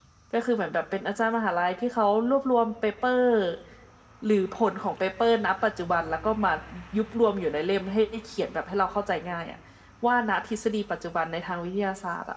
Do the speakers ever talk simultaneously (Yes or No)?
No